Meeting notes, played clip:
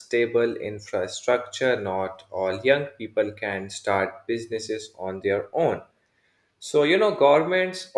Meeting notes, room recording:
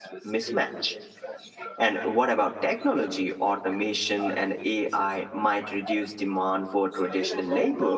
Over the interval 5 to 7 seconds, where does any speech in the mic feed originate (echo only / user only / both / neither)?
both